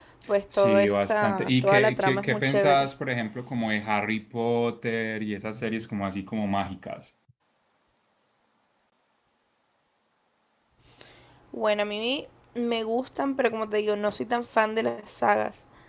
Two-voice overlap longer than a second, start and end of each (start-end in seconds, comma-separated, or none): 0.5-2.9